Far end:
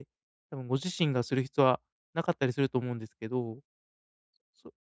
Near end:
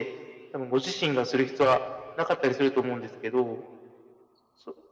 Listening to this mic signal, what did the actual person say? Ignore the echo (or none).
none